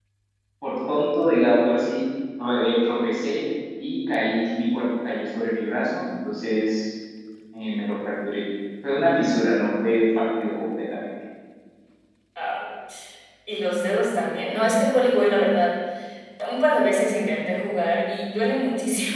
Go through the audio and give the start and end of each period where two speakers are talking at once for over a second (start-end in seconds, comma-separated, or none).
none